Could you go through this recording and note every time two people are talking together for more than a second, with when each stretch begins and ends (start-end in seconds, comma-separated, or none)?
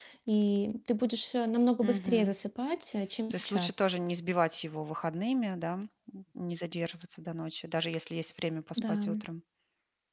none